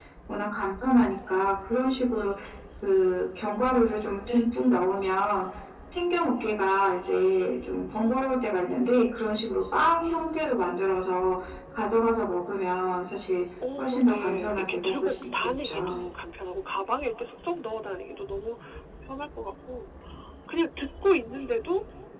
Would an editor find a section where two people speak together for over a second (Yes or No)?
Yes